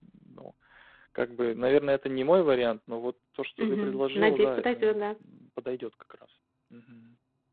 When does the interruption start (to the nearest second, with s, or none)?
4 s